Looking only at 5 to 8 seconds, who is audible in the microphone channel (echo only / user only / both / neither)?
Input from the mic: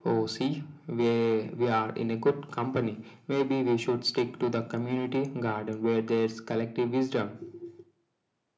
echo only